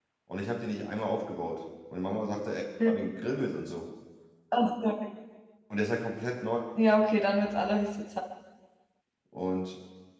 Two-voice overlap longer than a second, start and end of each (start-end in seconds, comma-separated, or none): none